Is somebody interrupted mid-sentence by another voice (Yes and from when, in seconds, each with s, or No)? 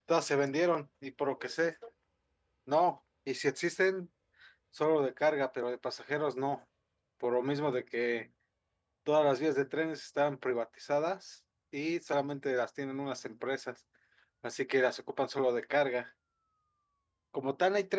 No